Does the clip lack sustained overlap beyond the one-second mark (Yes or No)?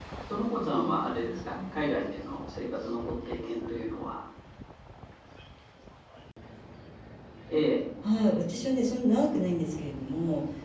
No